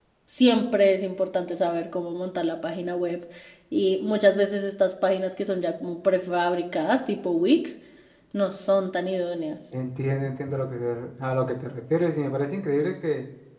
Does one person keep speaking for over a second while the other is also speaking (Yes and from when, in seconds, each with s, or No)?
No